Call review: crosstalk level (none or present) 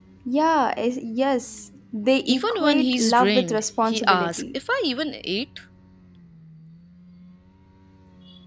present